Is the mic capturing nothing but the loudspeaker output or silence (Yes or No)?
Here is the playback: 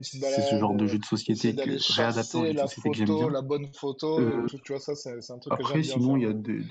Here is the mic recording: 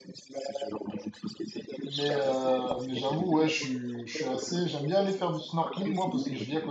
No